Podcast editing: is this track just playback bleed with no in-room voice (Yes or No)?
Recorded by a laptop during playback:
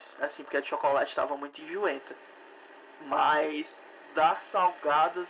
Yes